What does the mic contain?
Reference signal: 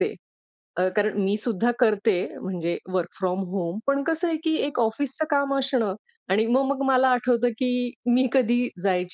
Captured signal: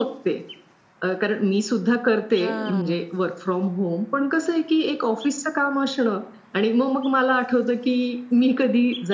both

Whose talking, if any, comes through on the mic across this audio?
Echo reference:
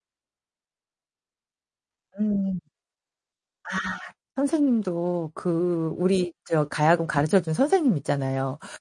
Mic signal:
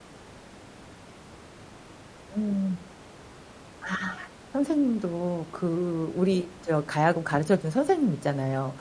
echo only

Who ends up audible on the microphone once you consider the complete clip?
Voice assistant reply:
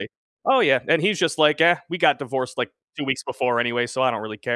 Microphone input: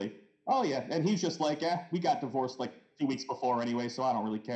echo only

